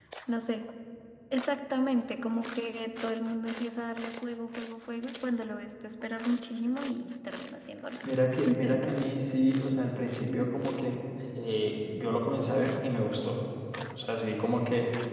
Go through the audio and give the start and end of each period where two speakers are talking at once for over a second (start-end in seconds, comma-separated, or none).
none